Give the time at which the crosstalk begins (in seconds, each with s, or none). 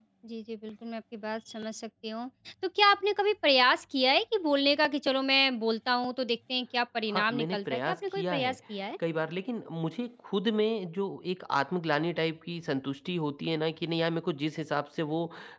7.1 s